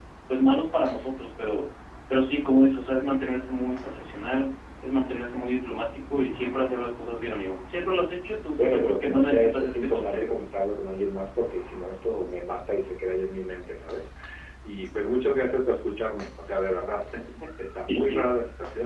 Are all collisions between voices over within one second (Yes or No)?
No